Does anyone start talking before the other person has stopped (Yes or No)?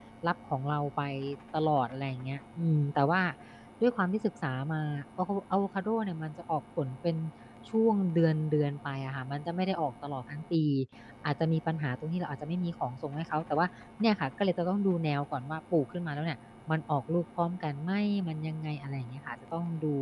No